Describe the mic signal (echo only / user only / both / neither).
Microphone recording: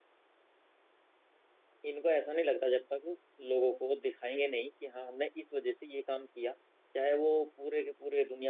user only